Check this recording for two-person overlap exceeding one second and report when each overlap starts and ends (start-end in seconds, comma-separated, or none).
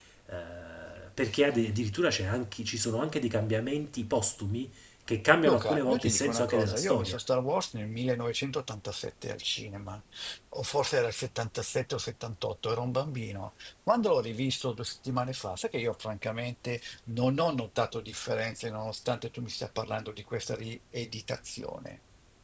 5.5-7.2